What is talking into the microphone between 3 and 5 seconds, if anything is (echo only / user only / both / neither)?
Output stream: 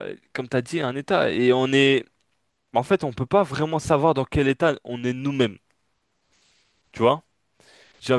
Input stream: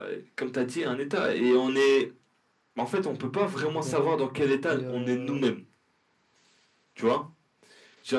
both